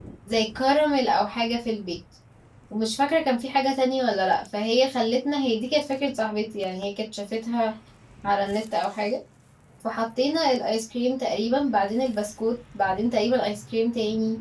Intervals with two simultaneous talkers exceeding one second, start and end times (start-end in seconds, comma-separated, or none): none